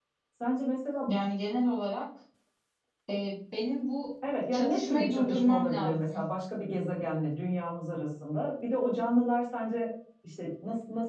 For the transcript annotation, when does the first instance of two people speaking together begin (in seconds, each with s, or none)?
4.5 s